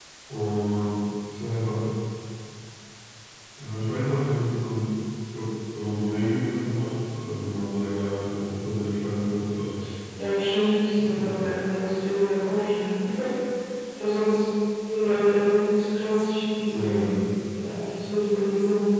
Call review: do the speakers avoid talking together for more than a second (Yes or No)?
Yes